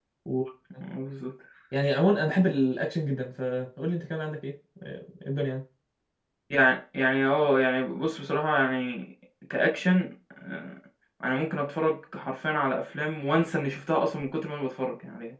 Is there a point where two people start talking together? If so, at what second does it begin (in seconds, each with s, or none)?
none